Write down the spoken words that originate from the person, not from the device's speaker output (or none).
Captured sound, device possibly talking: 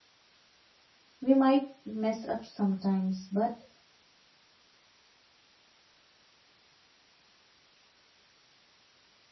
we might mess up sometimes, but